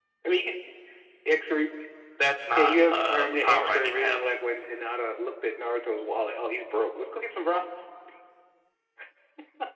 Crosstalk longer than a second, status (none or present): present